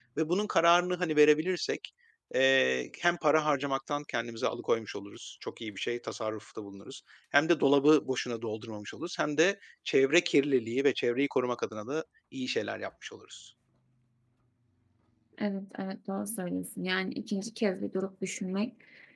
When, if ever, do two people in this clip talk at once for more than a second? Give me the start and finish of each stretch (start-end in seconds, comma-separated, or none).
none